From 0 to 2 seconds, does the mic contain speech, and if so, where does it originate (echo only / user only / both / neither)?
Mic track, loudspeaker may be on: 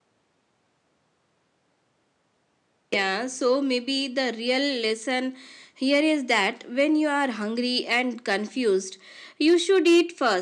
neither